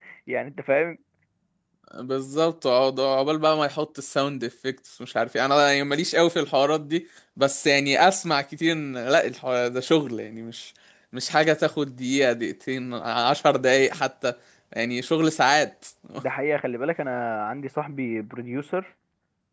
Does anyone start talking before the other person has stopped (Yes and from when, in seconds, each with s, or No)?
No